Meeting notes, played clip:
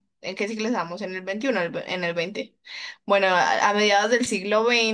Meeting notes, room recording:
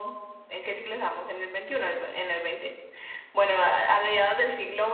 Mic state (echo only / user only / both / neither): echo only